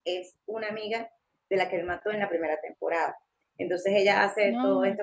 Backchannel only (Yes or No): Yes